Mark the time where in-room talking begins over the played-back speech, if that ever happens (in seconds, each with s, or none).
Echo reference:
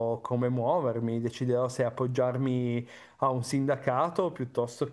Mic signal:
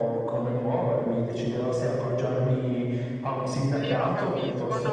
3.7 s